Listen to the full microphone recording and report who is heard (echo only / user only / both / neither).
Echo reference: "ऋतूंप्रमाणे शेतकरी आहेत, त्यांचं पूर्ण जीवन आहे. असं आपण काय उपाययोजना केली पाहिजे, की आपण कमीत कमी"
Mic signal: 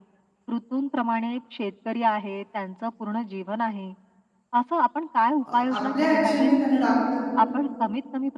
both